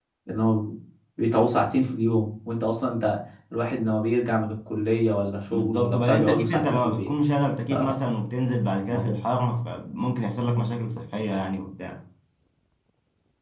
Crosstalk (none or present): present